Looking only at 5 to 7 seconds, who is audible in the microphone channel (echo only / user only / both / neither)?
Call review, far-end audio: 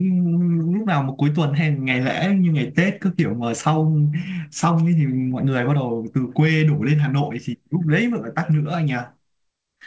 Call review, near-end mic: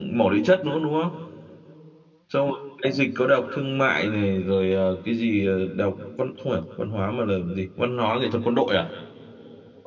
user only